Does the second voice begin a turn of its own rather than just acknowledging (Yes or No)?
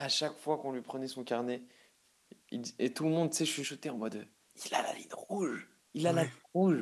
No